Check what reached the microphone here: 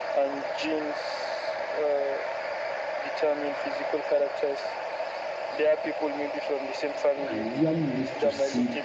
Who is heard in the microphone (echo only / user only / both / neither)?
both